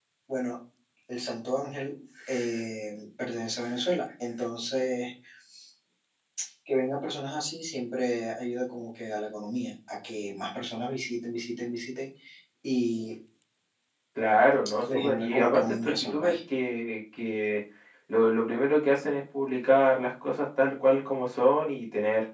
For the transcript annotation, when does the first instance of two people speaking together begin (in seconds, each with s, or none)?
14.9 s